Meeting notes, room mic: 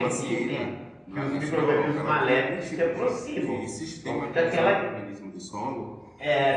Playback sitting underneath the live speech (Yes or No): Yes